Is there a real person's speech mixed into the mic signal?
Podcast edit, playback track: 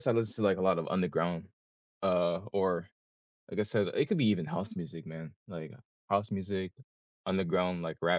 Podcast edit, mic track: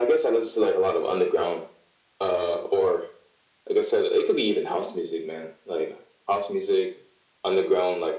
No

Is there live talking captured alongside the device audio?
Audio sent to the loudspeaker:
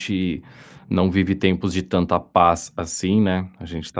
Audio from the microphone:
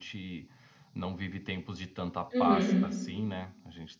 Yes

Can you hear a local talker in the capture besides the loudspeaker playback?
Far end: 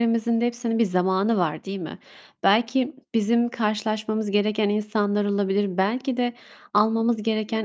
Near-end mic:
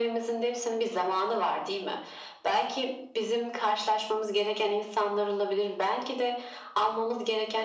No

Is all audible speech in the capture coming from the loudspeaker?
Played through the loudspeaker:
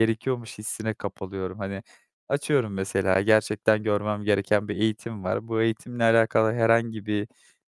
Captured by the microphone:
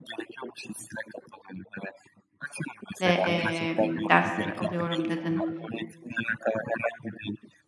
No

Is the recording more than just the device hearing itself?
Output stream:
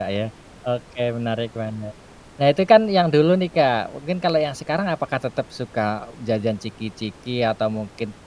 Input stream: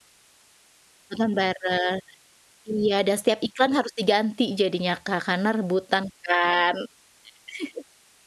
Yes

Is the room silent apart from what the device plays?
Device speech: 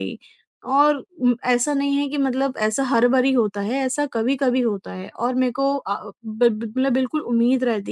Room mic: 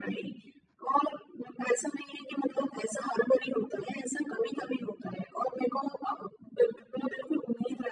Yes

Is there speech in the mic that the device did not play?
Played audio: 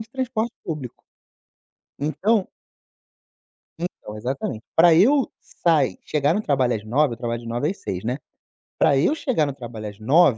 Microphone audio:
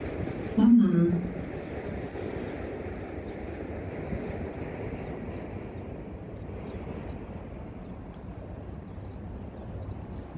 Yes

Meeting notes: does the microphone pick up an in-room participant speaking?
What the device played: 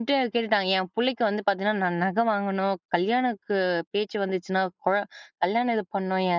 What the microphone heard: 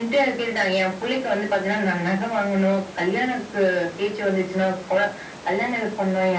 No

